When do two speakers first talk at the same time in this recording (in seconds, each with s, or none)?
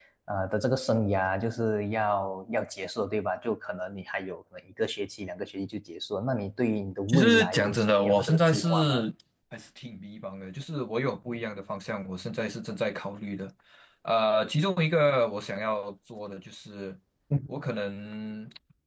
7.1 s